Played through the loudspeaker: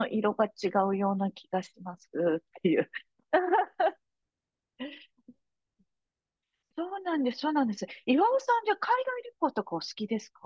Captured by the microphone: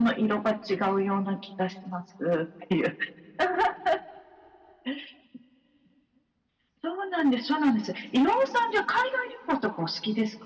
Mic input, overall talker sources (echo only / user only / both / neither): echo only